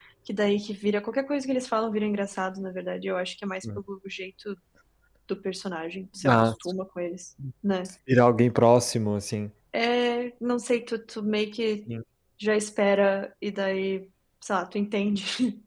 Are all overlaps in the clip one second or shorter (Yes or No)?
Yes